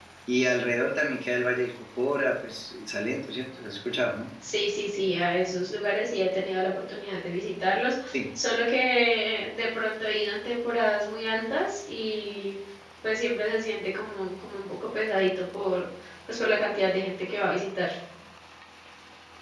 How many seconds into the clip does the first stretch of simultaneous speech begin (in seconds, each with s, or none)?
none